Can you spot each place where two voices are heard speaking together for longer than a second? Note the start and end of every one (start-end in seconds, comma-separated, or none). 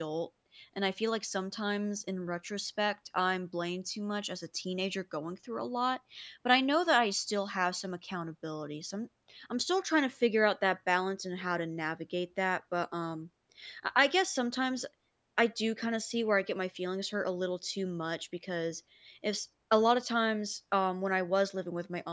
none